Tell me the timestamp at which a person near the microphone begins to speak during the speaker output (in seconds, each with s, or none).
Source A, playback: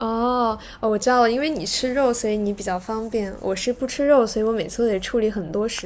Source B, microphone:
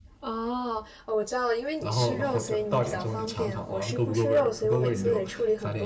1.8 s